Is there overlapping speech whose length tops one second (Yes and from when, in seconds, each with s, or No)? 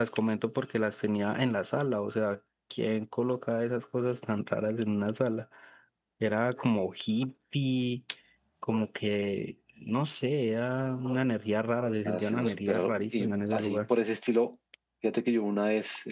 Yes, from 12.1 s